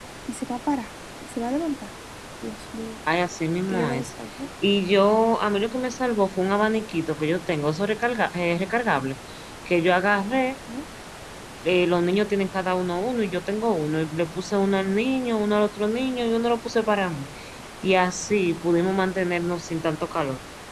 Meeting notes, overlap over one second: none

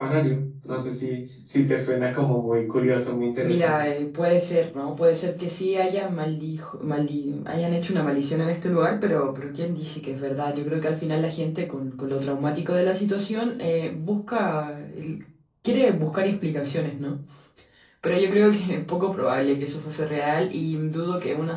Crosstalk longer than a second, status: none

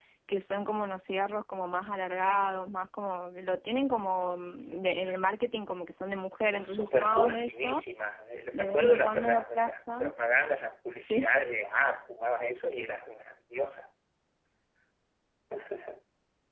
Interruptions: present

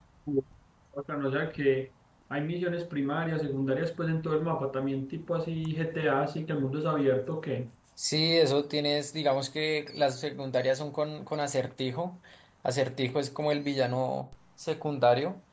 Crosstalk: none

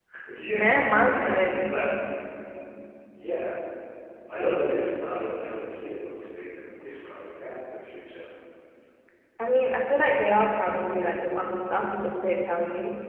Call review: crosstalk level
present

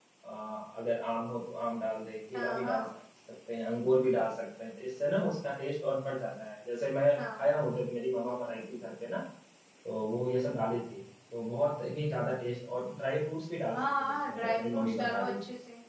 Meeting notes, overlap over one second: present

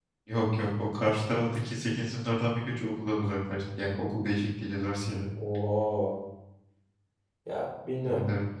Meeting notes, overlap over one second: none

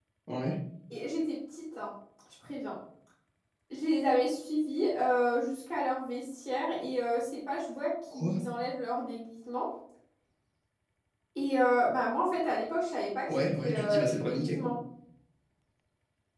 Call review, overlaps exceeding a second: present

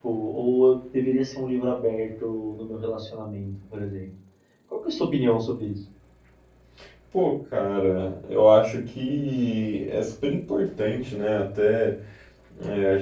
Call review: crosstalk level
none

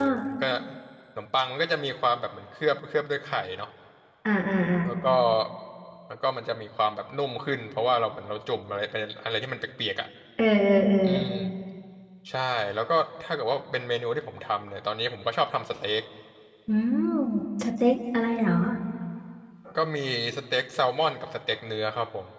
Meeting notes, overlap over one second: none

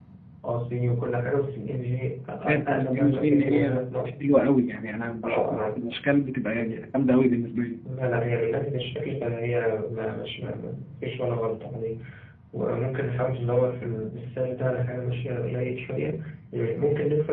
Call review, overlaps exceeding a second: present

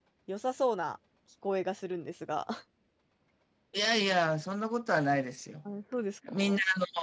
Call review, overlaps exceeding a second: none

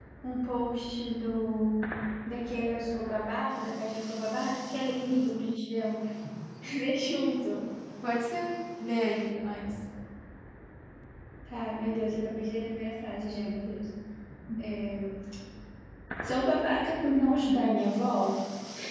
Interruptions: none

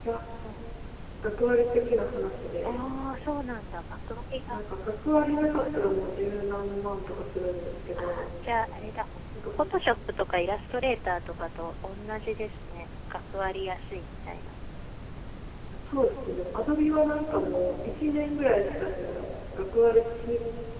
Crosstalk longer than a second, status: none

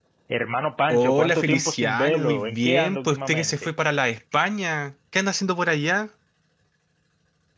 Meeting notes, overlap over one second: present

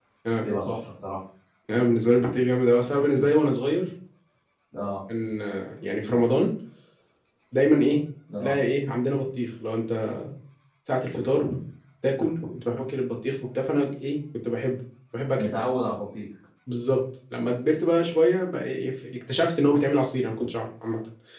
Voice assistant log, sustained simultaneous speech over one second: none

